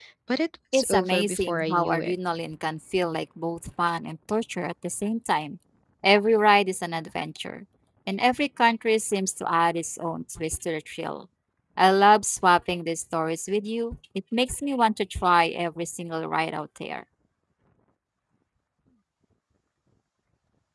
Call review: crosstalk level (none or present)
present